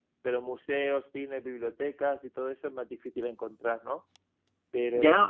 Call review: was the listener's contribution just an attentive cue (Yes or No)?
No